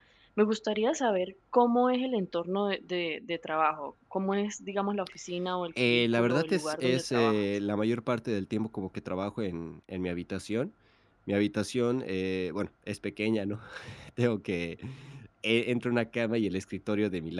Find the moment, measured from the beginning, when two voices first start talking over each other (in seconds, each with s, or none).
5.8 s